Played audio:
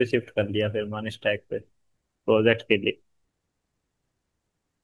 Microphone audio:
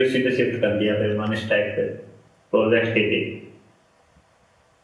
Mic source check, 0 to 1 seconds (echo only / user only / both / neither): echo only